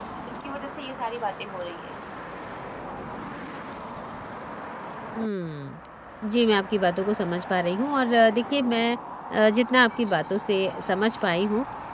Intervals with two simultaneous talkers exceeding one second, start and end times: none

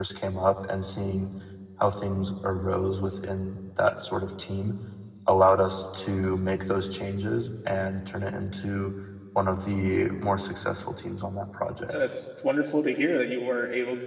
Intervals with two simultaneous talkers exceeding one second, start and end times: none

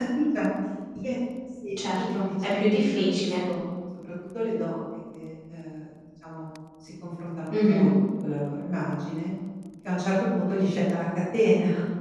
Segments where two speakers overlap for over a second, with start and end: 2.0-3.3

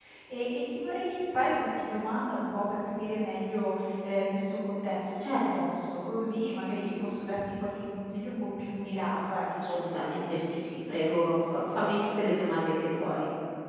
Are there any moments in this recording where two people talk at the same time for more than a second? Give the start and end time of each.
none

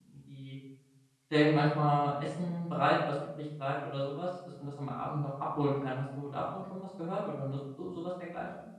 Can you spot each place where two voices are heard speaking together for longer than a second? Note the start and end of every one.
none

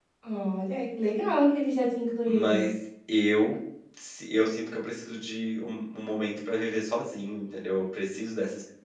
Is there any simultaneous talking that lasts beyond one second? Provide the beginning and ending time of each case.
none

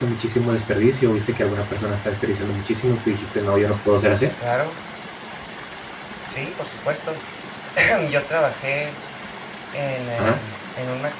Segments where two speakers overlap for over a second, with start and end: none

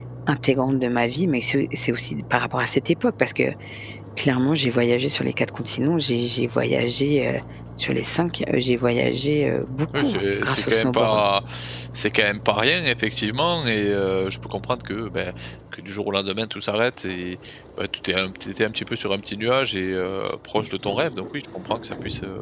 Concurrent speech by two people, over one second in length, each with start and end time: 9.9-11.2

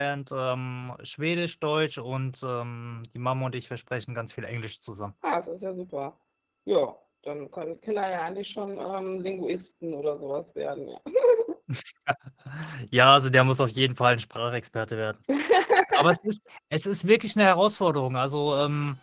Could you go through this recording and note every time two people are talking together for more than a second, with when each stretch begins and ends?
none

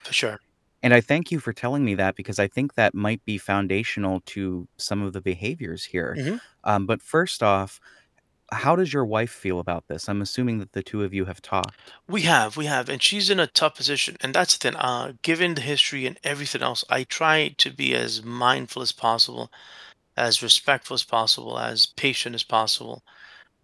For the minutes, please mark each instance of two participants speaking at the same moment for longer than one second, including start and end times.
none

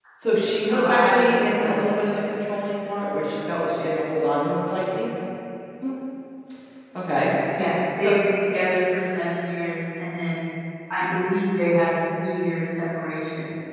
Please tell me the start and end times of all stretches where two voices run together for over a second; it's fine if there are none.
0.6-1.8

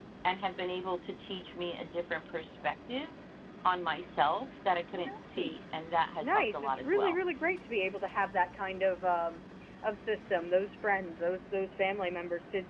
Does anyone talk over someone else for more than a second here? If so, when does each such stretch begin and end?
5.4-7.2

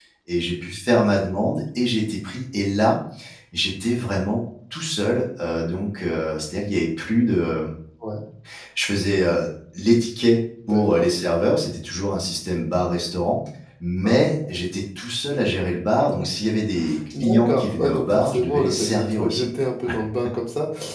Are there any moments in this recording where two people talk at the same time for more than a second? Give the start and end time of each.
17.2-19.5

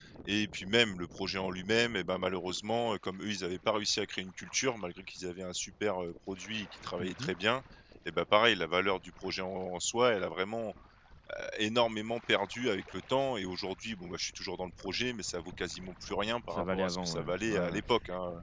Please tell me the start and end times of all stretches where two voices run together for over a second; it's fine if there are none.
16.5-17.8

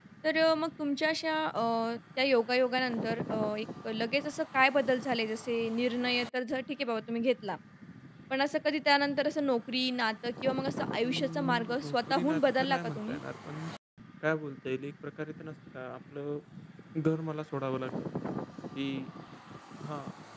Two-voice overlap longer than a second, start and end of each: 11.0-13.2

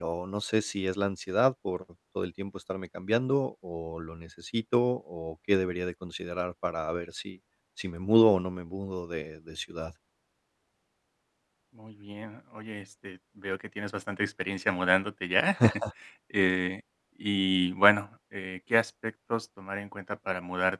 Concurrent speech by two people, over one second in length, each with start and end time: none

